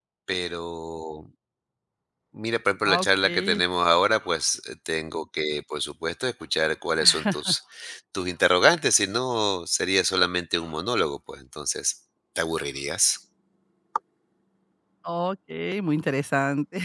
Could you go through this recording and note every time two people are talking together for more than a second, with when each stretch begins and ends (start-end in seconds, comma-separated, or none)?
none